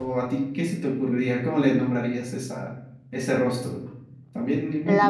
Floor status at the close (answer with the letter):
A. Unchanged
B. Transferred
B